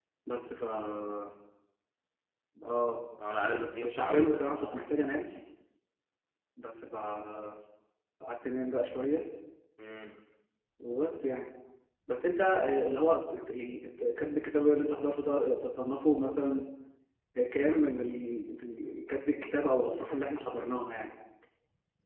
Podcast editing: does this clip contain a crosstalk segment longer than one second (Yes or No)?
Yes